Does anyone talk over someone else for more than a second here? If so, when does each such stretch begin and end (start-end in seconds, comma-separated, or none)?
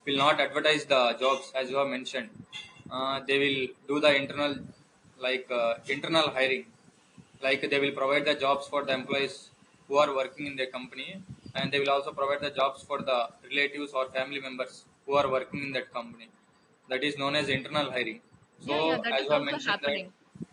18.6-20.0